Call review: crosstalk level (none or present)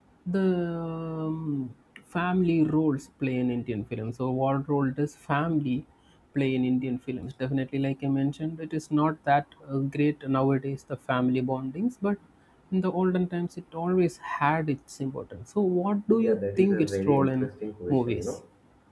present